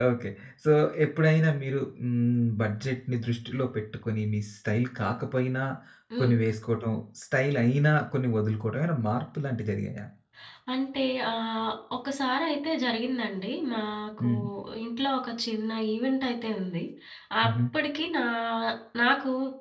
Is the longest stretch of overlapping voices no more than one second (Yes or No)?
Yes